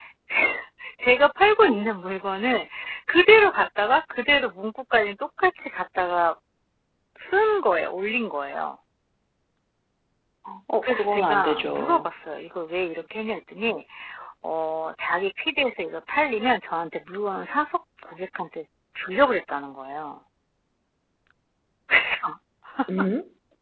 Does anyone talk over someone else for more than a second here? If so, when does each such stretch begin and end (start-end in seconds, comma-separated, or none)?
10.8-12.1